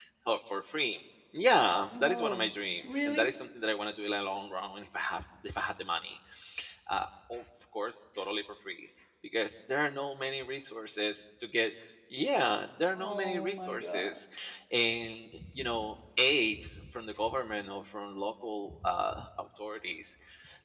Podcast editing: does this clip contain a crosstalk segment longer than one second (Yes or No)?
Yes